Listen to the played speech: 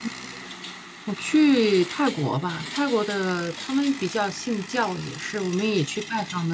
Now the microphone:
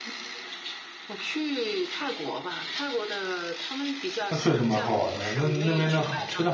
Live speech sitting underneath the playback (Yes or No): No